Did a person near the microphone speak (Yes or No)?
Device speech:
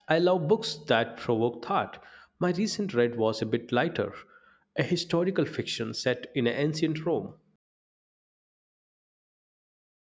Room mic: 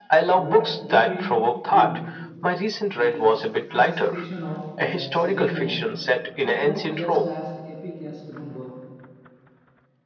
Yes